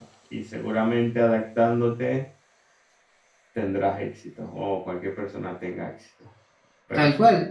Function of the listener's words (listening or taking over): taking over